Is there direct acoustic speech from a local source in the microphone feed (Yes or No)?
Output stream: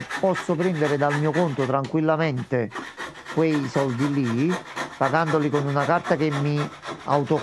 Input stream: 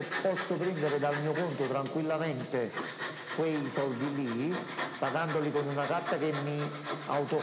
No